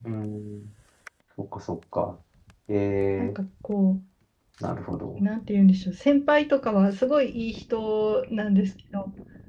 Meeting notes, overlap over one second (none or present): none